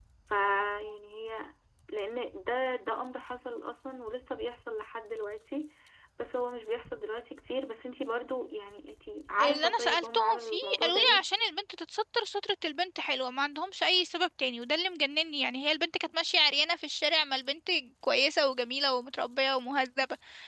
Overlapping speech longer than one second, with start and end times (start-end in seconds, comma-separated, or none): 9.4-11.2